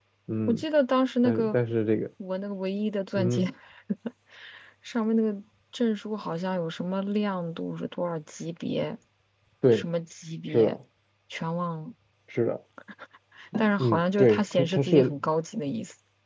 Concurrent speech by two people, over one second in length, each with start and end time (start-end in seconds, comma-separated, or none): 13.8-15.1